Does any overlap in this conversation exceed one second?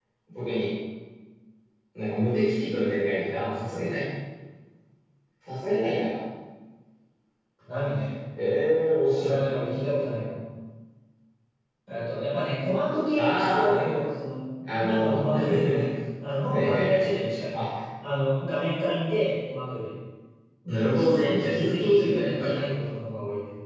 Yes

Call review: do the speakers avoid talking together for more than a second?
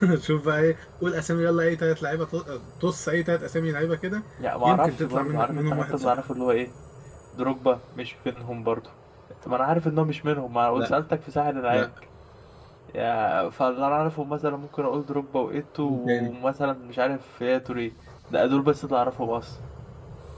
No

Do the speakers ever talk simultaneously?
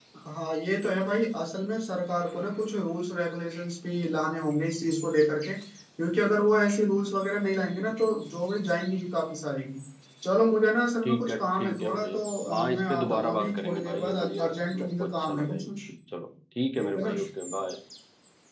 Yes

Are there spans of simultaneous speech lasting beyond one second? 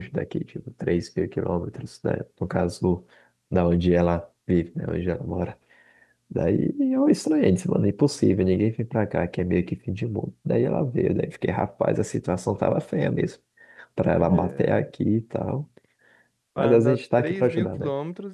Yes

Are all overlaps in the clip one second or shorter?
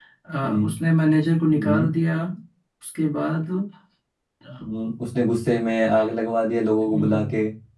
Yes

